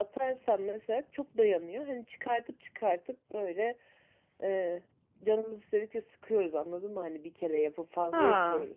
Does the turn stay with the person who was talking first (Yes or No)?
No